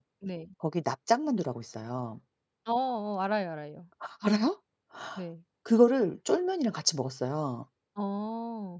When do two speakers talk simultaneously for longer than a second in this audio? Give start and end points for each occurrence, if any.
none

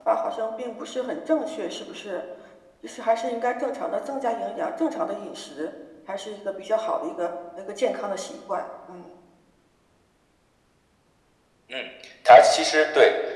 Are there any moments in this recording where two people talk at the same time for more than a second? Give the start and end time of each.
none

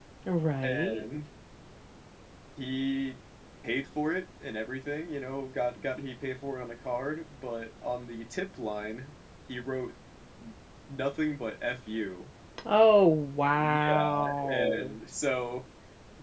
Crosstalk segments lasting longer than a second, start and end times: 13.6-14.9

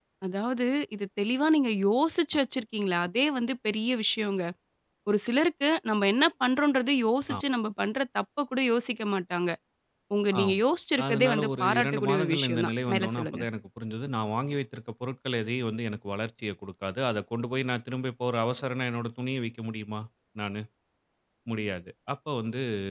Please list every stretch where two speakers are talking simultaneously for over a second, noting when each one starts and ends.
11.1-13.4

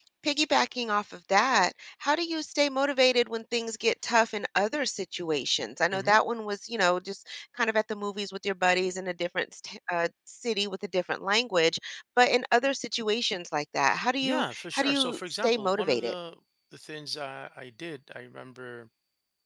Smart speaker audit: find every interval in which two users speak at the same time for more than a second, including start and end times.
14.2-16.1

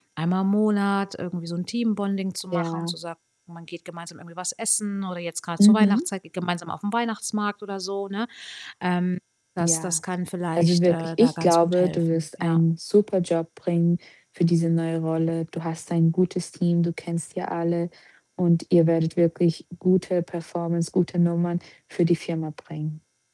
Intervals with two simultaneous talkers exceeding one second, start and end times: 10.6-12.6

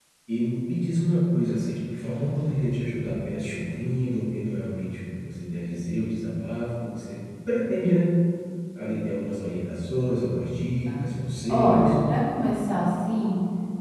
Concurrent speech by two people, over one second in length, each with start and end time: none

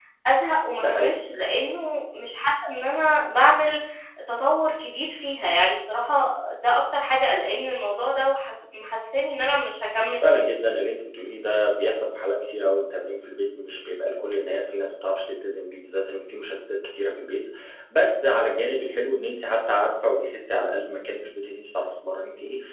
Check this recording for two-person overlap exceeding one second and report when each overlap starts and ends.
none

